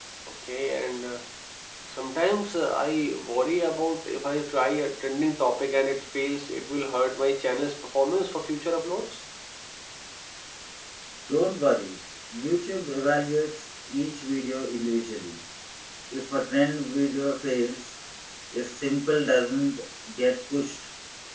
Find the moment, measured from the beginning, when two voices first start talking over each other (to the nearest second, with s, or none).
none